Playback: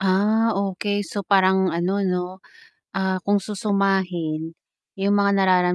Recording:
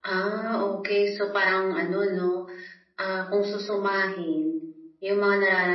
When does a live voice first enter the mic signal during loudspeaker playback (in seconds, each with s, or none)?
none